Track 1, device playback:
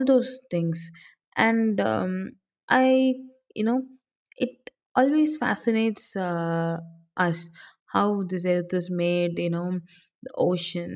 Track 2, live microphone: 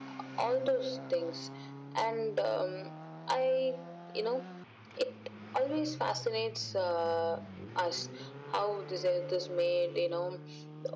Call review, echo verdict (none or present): present